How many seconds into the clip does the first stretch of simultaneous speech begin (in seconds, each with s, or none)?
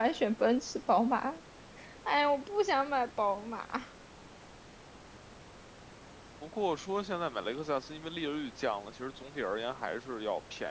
none